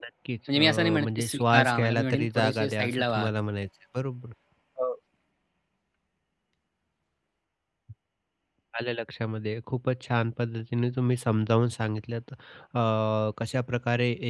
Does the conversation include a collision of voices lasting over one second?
Yes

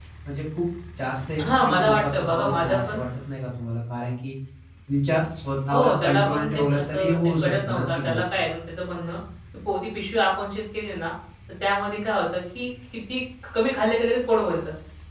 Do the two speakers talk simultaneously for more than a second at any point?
Yes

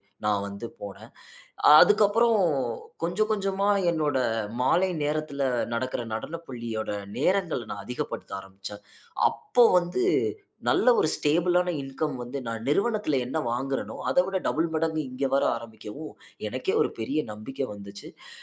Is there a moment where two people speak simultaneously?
No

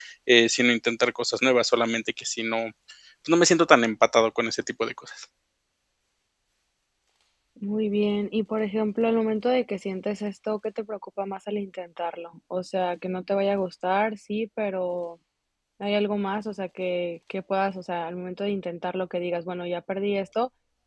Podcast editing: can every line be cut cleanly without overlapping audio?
Yes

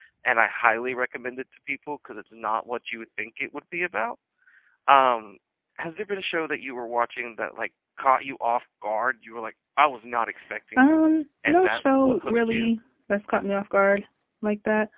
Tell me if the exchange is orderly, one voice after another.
No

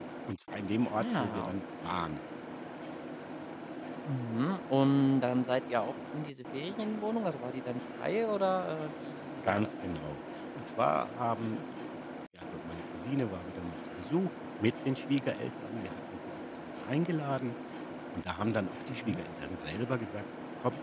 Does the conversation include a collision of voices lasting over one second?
No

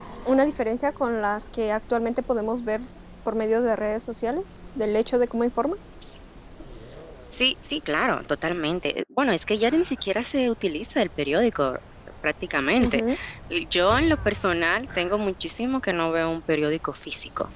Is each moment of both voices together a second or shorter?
Yes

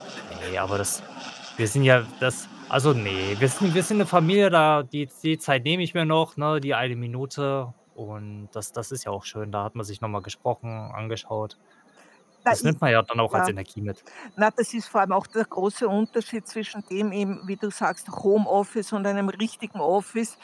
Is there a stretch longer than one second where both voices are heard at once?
No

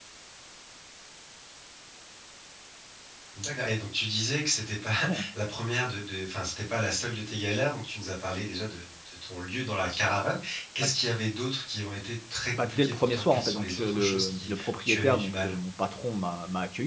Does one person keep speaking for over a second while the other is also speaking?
Yes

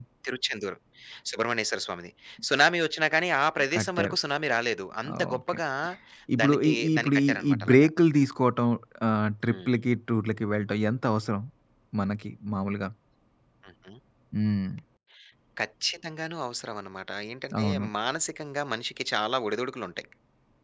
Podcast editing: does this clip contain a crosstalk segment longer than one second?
Yes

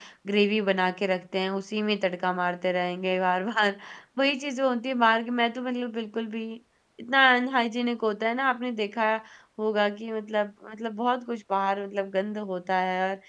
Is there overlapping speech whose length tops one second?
No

